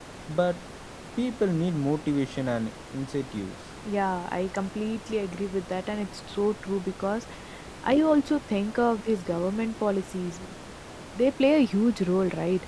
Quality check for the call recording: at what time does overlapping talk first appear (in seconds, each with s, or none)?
none